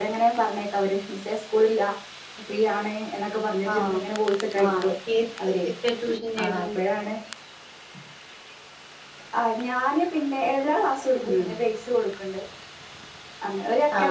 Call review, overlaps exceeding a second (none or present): none